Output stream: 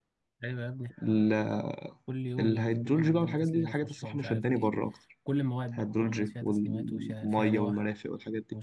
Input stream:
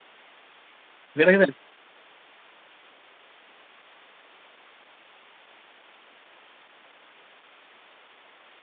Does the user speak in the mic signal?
Yes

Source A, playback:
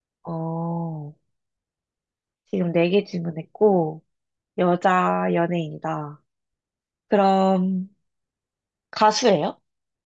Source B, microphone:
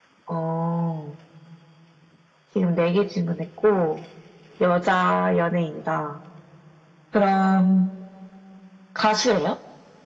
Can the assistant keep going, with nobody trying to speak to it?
Yes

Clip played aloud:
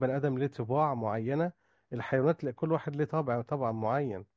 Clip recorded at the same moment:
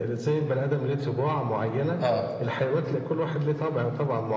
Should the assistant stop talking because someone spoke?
Yes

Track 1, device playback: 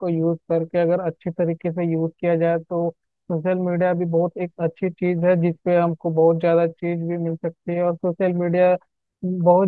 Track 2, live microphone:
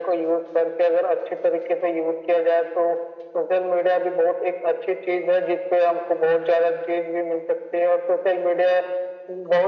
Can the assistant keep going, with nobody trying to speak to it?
Yes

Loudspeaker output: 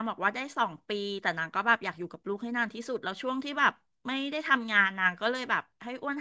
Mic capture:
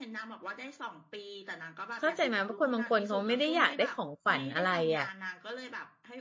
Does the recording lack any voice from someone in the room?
No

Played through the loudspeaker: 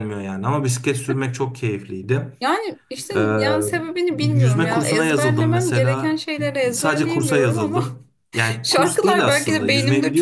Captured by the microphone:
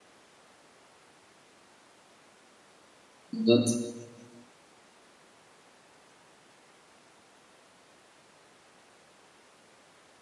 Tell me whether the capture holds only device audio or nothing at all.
No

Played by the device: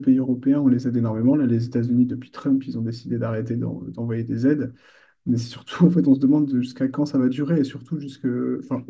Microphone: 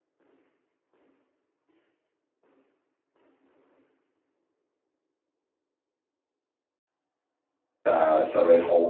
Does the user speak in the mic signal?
Yes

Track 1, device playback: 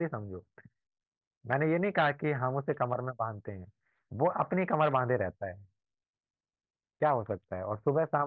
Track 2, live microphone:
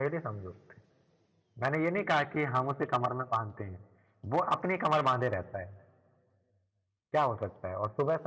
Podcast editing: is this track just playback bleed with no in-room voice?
Yes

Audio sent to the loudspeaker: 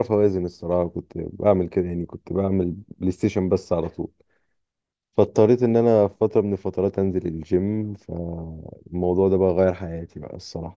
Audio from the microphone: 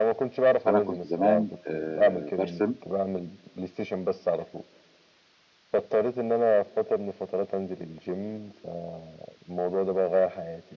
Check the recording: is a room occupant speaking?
Yes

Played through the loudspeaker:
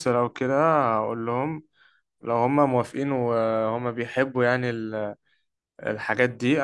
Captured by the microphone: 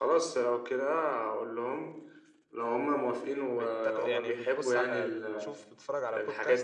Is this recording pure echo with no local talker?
No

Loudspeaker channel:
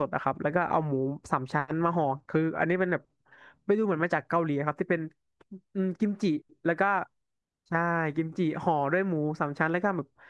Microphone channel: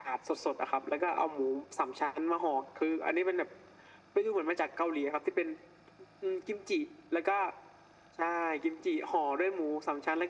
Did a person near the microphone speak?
No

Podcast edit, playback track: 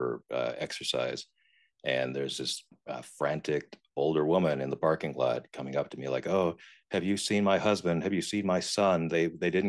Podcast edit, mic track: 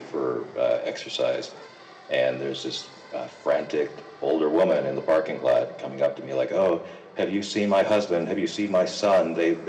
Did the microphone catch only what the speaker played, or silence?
Yes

